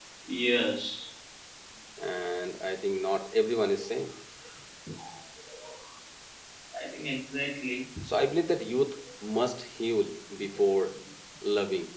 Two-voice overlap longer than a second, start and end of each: none

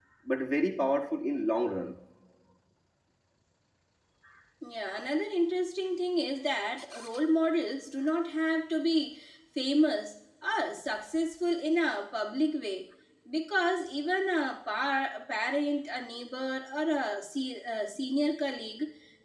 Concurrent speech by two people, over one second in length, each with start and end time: none

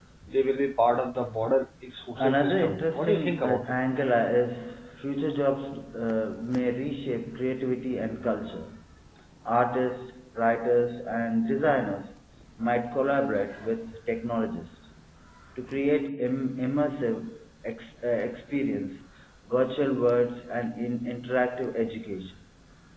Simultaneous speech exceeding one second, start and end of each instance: 2.2-3.7

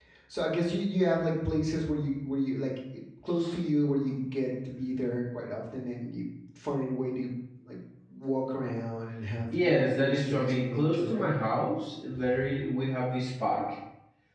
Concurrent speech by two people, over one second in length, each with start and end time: 9.6-11.3

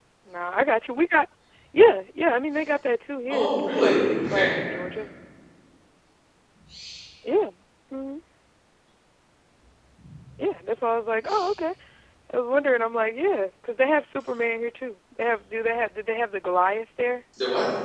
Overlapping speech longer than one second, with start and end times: 3.3-4.5

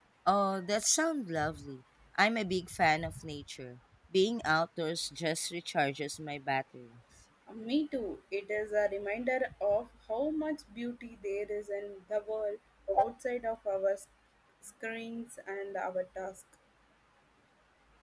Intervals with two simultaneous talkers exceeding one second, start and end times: none

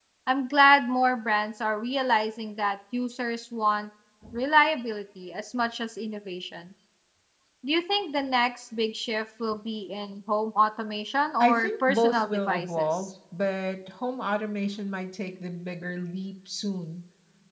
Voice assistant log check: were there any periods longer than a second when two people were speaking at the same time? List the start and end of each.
11.4-13.1

